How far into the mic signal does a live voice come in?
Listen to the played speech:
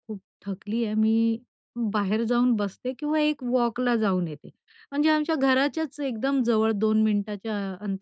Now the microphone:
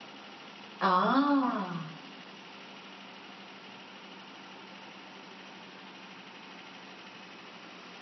0.9 s

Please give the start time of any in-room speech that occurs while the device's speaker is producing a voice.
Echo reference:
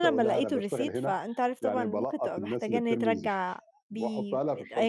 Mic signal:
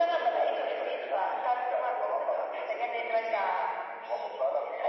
none

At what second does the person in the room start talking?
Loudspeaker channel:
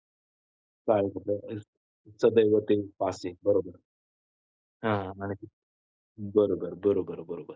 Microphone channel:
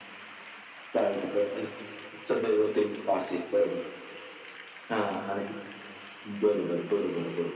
none

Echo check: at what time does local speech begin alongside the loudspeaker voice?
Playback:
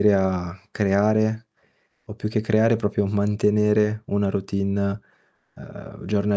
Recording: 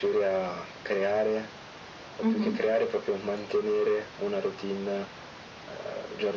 2.2 s

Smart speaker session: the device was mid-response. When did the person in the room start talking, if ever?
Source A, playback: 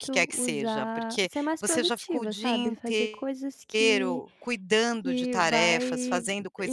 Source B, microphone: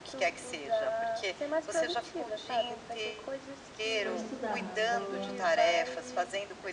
4.0 s

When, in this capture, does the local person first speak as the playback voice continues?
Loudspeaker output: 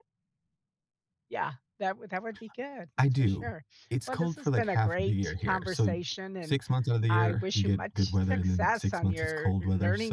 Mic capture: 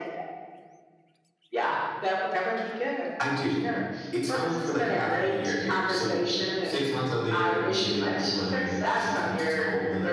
none

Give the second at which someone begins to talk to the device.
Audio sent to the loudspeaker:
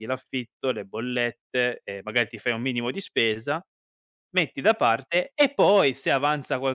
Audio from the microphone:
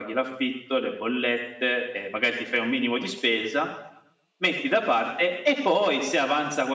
none

